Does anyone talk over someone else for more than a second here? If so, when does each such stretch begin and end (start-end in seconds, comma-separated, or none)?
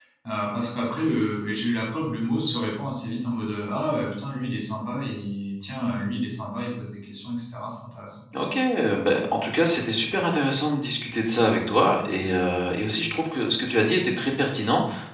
none